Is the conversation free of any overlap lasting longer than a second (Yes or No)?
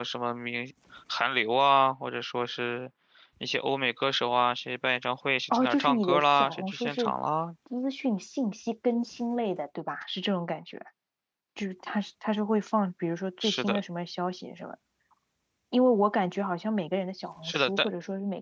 No